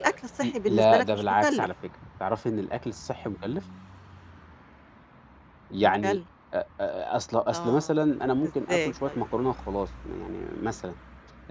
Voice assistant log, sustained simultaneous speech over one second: present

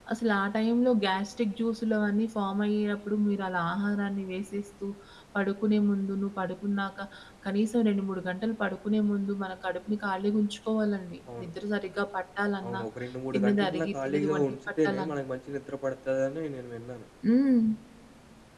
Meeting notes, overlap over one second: present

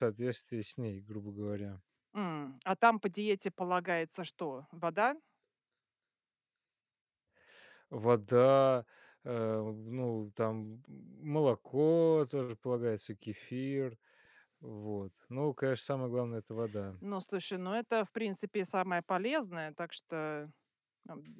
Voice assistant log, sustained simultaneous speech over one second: none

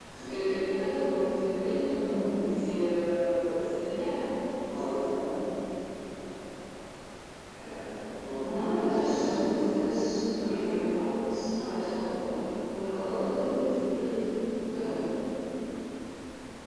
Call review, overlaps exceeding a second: present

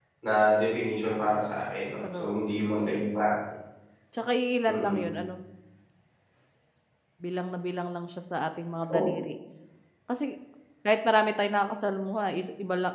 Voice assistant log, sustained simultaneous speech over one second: none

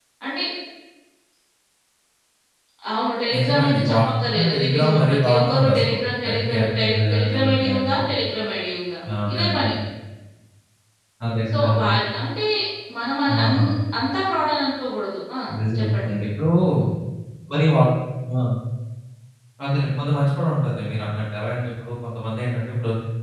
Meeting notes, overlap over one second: present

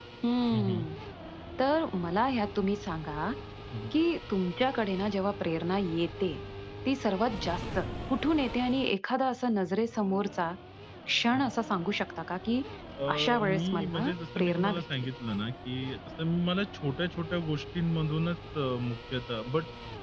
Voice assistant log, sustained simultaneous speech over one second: present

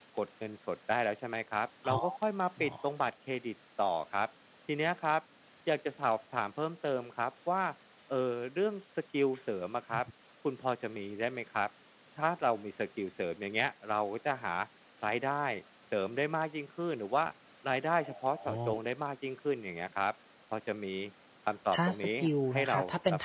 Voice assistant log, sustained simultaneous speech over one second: present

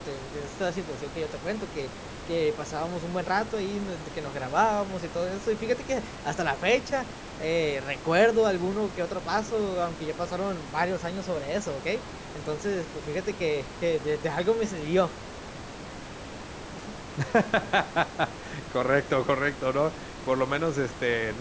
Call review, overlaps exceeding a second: none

